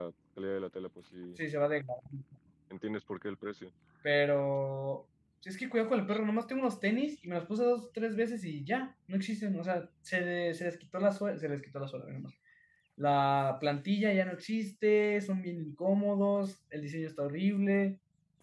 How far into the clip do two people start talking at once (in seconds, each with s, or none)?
none